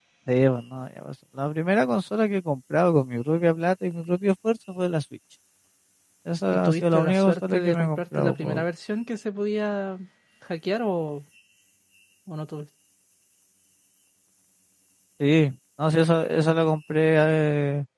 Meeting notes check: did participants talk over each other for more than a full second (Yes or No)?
Yes